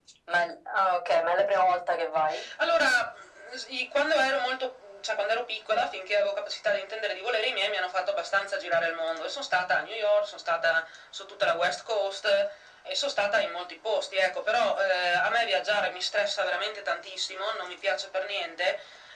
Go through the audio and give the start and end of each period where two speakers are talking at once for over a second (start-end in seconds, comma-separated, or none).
none